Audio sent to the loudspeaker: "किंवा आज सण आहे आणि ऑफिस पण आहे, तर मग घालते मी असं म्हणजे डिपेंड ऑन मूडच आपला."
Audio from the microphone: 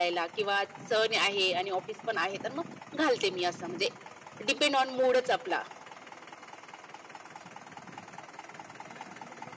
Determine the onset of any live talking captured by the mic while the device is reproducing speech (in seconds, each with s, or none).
none